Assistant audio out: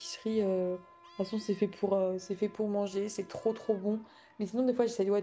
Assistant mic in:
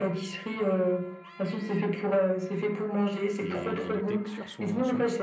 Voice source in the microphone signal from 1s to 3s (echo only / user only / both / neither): echo only